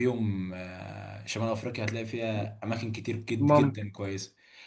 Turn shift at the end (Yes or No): No